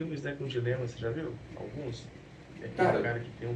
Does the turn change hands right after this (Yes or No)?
No